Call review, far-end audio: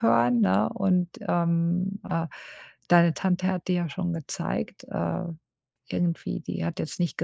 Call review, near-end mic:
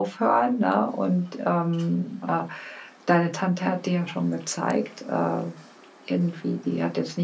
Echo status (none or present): present